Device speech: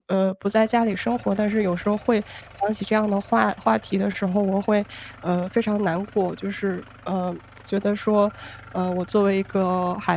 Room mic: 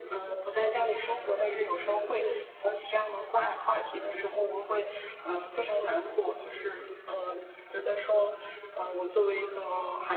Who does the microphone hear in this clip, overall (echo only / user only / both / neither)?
echo only